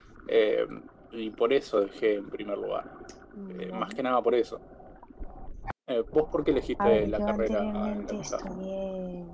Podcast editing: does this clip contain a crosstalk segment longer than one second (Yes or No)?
Yes